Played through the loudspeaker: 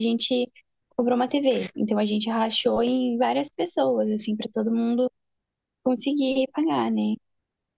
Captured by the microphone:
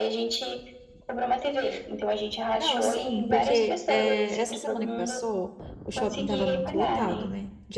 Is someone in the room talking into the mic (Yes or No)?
Yes